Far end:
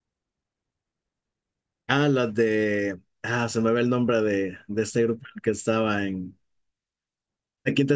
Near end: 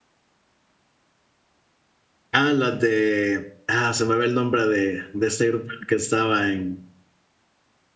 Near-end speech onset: none

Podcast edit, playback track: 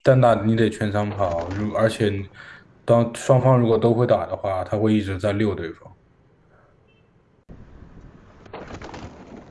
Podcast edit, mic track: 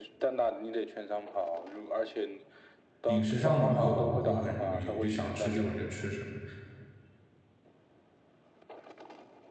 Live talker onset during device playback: 3 s

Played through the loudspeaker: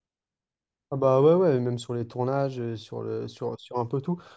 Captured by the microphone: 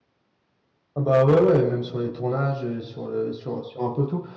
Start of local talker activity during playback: none

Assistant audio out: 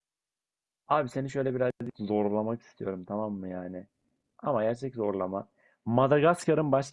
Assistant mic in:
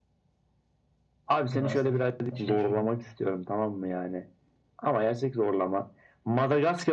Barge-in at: 2 s

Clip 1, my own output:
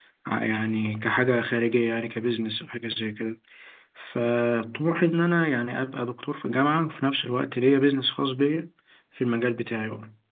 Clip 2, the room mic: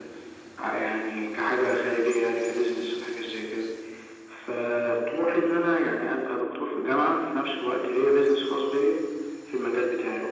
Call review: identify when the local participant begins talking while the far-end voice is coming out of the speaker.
none

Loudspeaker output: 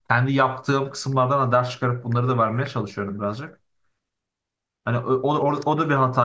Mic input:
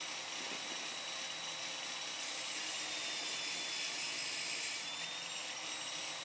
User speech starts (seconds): none

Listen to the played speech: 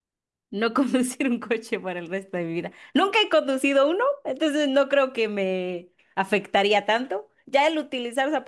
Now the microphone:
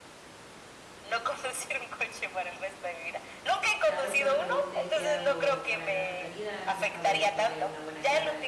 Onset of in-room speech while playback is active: 4 s

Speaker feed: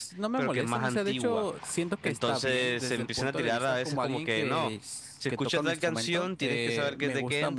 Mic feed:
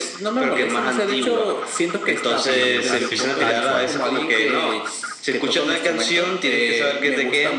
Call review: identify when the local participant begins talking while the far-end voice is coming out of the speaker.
2 s

